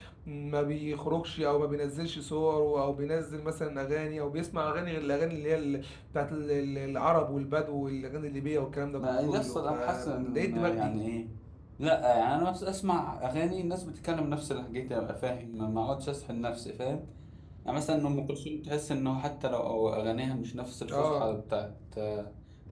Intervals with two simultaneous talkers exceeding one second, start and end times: 9.0-11.0

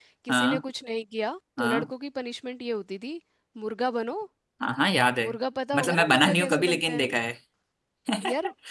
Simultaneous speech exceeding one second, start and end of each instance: 5.7-7.1

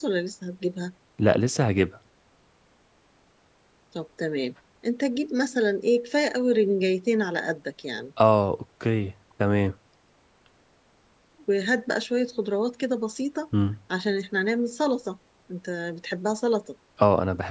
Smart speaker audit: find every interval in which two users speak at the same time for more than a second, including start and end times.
none

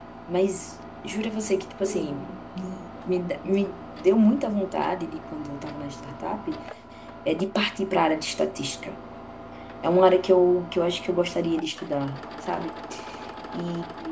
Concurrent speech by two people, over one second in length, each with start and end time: none

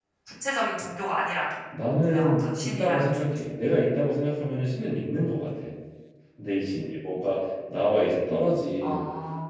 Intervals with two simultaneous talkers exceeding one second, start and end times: 2.1-3.4

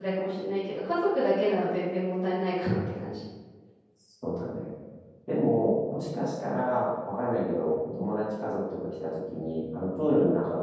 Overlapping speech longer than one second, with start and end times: none

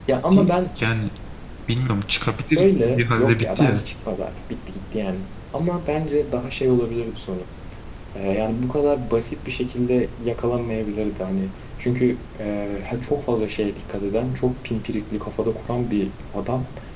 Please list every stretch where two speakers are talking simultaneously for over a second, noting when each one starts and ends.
2.6-3.8

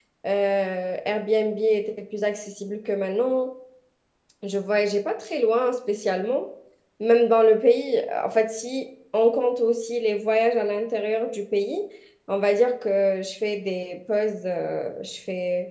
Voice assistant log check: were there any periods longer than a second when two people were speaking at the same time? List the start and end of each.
none

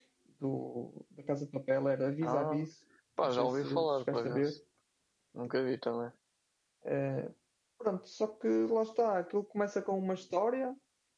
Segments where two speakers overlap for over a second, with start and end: 3.2-4.6

